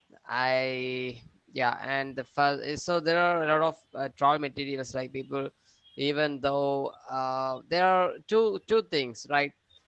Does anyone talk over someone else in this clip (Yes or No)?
No